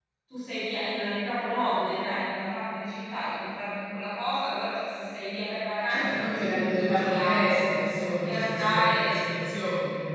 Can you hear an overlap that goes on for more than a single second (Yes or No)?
Yes